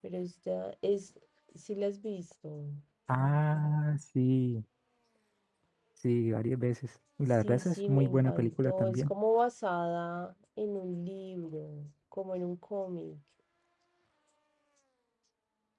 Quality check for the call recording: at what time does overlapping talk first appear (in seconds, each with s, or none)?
7.4 s